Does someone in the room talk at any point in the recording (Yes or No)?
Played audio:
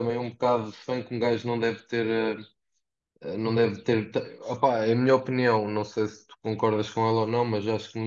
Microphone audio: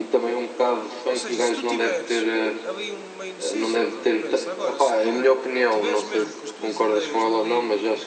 Yes